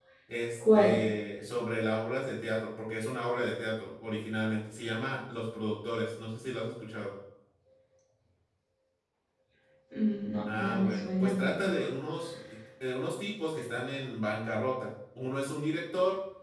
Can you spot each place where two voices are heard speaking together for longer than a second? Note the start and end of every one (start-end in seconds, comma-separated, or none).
10.6-11.8